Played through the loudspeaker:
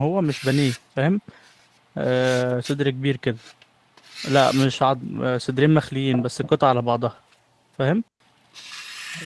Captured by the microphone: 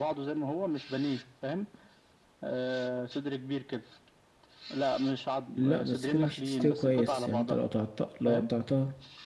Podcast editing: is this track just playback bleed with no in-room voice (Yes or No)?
No